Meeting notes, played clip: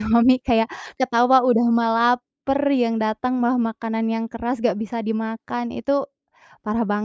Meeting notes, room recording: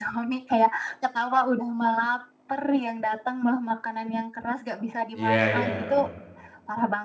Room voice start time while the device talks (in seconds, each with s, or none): 5.2 s